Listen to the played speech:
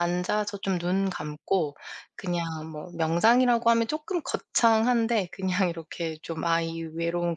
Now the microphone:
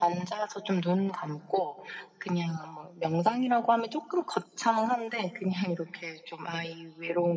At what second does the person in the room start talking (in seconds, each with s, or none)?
none